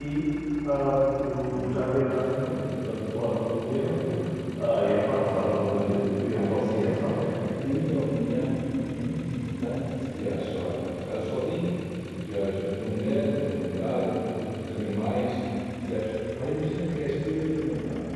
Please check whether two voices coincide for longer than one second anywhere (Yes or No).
Yes